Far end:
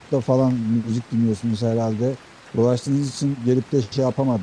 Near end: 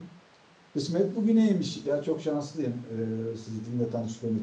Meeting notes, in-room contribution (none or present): present